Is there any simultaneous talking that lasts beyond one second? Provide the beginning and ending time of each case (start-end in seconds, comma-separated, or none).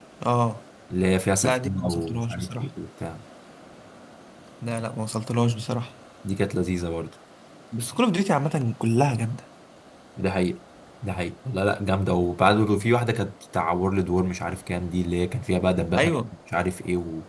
1.4-2.7